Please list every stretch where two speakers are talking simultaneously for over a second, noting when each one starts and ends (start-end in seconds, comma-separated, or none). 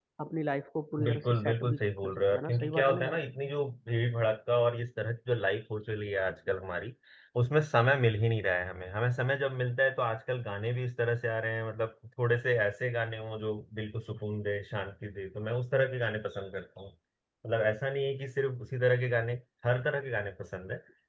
1.0-3.2